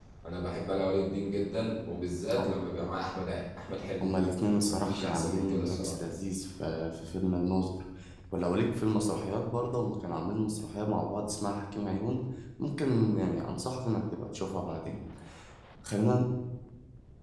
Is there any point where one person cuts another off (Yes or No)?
Yes